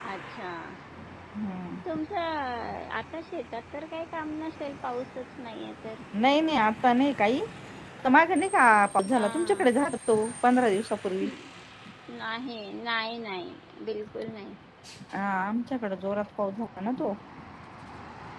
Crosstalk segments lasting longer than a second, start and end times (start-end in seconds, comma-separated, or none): none